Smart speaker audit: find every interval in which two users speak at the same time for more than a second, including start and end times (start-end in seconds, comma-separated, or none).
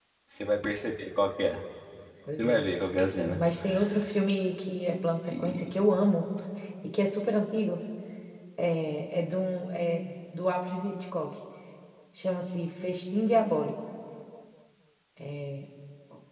none